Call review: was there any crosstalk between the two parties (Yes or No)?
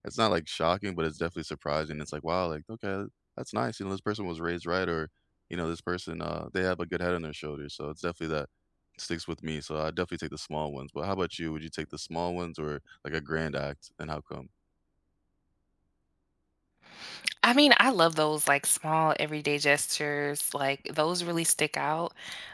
No